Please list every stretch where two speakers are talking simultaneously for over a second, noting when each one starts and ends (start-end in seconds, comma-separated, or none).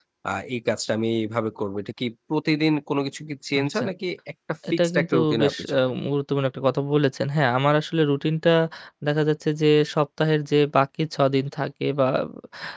4.7-5.9